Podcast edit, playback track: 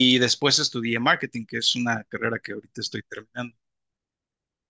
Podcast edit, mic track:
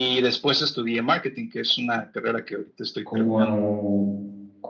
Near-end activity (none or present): present